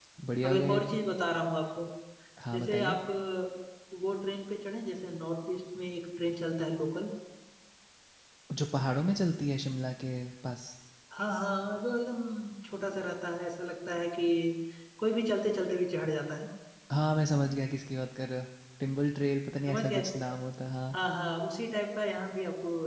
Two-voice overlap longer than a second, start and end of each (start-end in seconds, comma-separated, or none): none